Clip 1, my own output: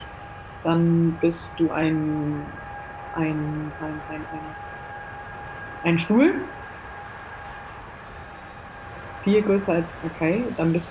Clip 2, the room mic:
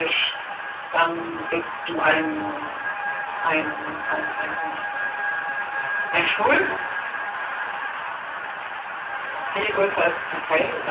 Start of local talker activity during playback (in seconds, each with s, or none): none